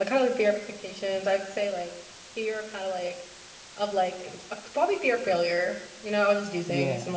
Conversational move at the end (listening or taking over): listening